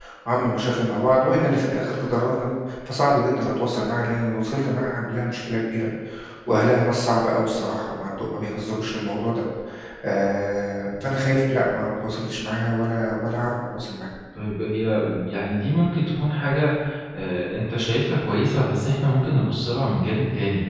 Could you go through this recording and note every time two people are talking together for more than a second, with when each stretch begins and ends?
none

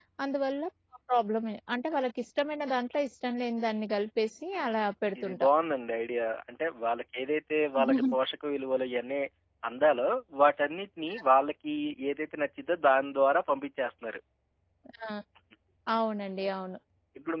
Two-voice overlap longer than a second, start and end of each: none

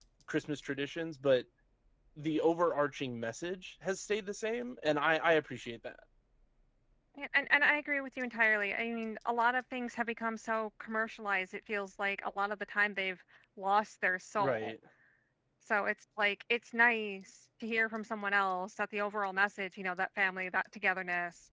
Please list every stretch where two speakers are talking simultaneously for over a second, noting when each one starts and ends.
none

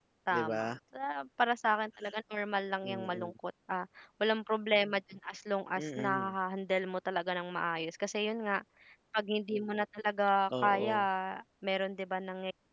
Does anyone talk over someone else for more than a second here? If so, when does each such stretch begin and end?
none

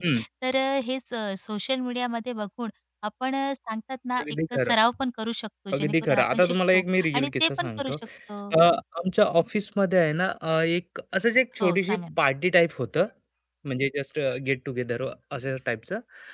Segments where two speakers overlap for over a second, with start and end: 5.7-8.0

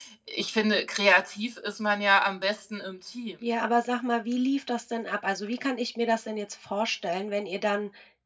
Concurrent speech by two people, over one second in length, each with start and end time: none

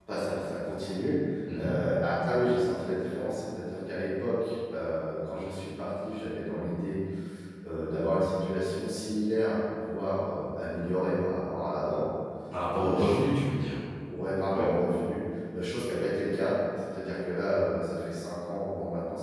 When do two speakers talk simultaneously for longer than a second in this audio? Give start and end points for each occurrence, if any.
none

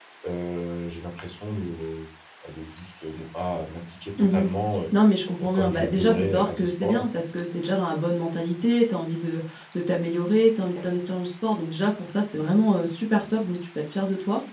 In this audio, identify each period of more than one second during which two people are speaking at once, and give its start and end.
5.5-7.0

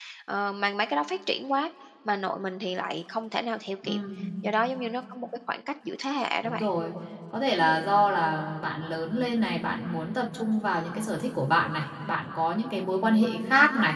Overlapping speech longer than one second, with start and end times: none

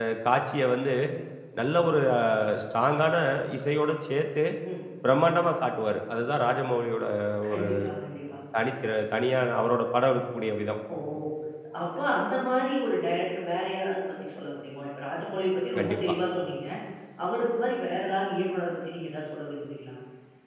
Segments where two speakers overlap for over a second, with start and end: none

